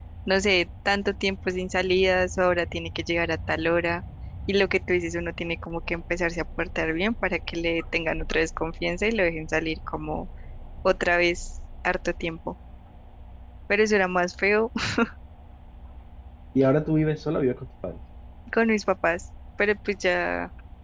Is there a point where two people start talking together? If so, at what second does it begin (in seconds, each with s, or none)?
none